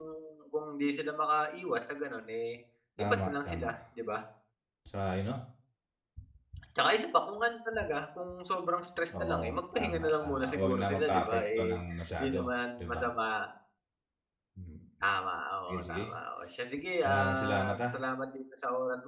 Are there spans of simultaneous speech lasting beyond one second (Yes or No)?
Yes